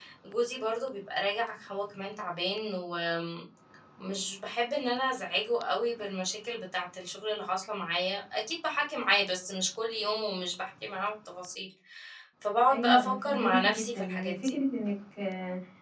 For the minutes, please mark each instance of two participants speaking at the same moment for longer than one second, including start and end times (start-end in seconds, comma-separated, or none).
12.7-14.6